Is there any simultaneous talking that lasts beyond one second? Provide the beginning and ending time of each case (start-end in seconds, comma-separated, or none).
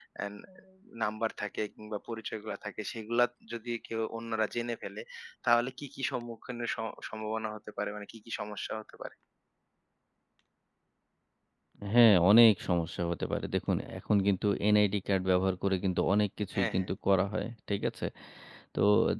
none